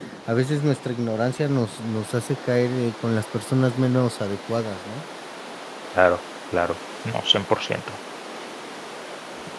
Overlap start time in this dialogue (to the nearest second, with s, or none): none